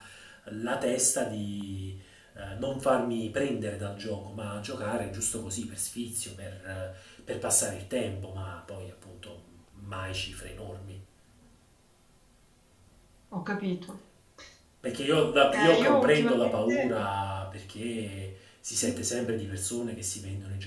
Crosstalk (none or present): present